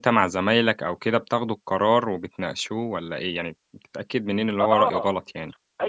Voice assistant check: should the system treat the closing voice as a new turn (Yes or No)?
Yes